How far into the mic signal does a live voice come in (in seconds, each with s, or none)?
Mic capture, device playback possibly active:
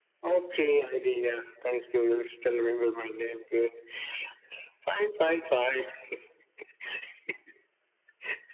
none